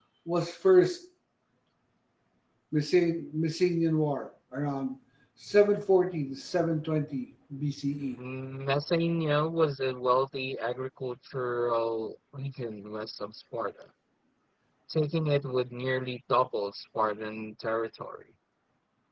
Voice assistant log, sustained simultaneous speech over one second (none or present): none